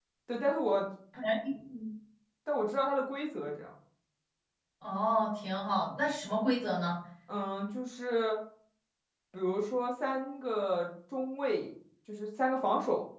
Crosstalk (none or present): none